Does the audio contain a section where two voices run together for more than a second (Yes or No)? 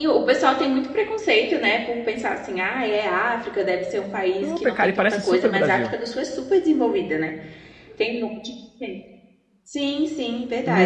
Yes